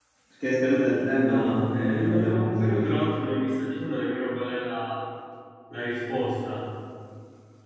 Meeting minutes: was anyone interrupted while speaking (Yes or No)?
Yes